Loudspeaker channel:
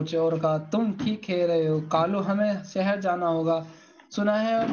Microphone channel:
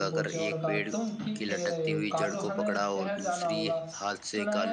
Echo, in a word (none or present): present